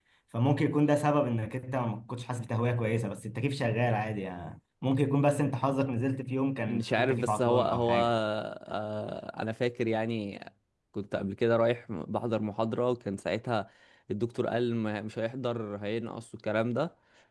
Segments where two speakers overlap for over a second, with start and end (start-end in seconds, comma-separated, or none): 6.7-8.1